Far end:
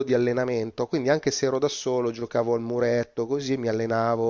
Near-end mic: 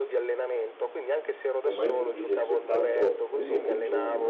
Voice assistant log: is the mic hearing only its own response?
No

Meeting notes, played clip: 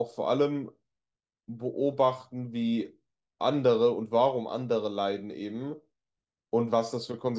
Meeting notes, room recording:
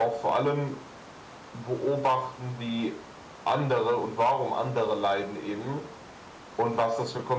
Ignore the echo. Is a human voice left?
No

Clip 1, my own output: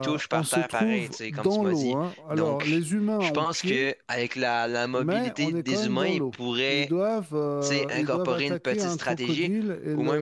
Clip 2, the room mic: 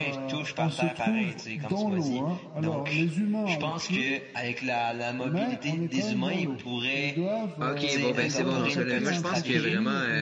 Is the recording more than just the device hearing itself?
Yes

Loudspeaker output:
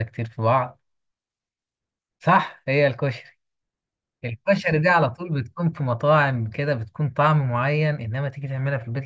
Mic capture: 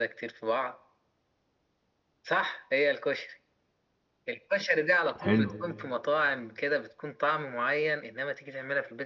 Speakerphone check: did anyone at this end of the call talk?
Yes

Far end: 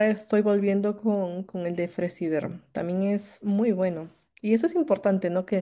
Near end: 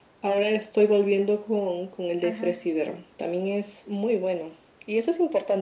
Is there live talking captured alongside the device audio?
Yes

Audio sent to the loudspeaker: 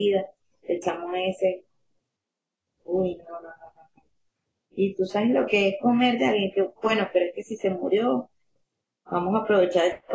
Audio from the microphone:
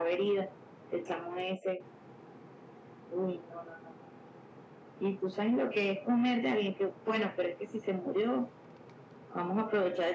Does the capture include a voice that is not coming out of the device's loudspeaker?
No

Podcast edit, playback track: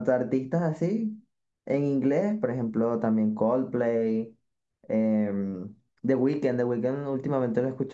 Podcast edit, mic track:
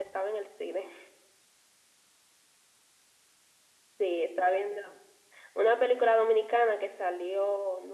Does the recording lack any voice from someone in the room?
No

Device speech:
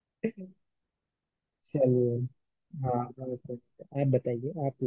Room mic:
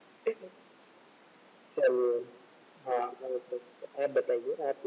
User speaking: No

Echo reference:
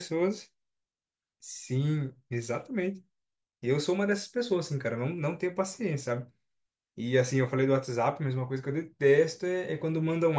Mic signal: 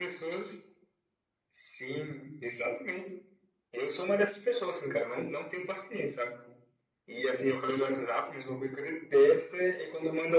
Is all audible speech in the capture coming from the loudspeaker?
Yes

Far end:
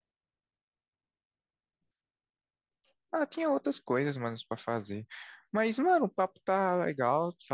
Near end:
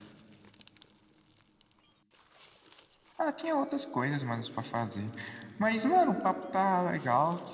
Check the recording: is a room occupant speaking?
No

